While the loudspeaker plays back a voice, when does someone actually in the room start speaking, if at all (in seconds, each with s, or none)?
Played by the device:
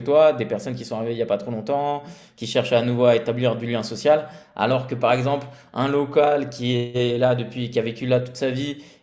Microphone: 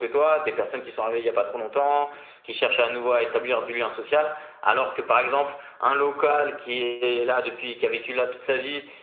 none